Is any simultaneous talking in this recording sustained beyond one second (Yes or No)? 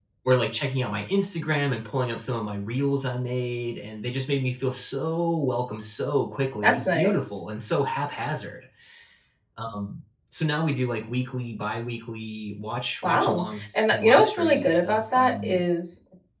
Yes